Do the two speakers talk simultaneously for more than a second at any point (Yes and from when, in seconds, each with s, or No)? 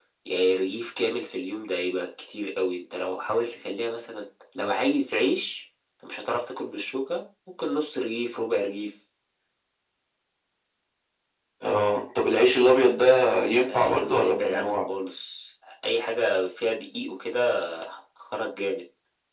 Yes, from 13.7 s